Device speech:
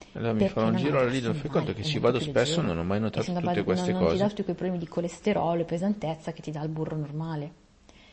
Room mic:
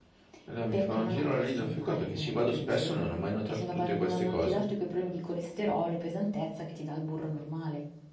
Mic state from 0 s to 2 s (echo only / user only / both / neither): echo only